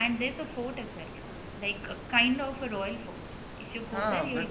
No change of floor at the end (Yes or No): No